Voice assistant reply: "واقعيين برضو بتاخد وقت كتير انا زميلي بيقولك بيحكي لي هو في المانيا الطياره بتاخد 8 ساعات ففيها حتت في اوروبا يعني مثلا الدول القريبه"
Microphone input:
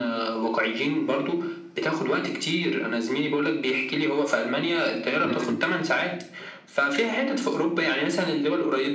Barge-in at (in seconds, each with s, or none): 5.2 s